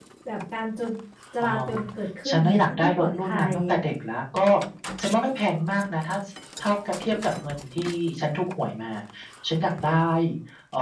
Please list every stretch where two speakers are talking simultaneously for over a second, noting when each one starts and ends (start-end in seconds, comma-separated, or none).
2.3-3.5